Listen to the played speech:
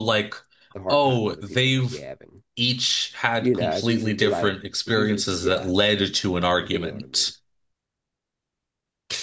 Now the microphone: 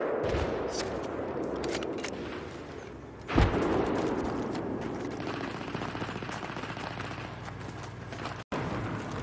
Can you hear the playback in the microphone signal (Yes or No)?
No